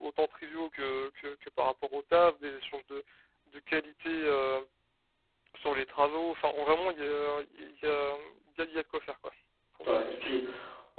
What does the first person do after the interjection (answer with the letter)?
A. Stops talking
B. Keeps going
A